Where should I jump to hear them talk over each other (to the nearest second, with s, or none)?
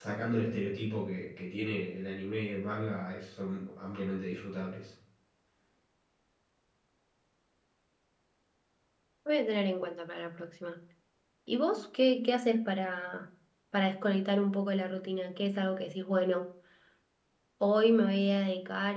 none